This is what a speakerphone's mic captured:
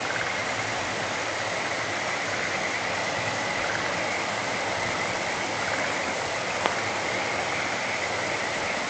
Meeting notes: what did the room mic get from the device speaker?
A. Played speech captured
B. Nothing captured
B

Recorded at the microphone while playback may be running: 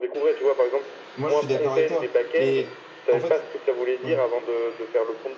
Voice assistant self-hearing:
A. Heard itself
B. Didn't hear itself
A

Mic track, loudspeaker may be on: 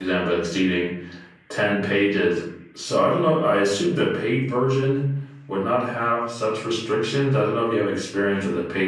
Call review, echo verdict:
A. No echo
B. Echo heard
A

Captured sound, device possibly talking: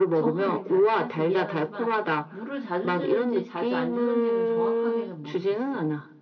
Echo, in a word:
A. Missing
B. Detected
B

